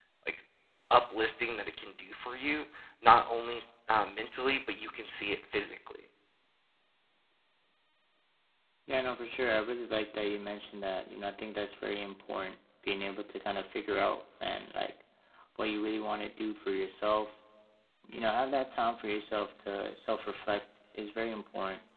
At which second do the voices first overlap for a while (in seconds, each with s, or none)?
none